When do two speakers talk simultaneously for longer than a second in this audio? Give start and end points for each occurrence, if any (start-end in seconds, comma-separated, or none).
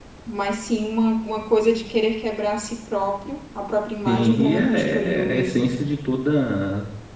4.1-5.5